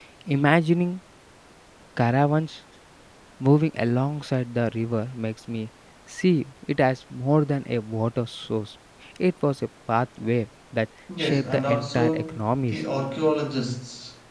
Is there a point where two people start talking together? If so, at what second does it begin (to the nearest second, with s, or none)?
11 s